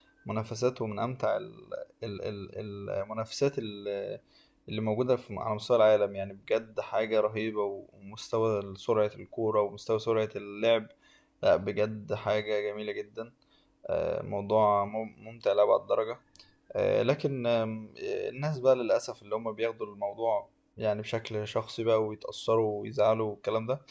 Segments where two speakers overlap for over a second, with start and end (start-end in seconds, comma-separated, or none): none